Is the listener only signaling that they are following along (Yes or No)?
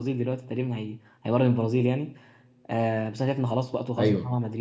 Yes